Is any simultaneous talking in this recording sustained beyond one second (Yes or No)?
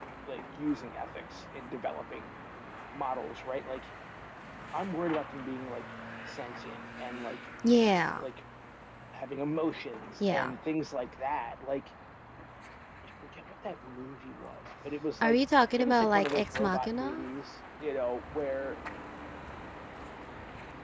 Yes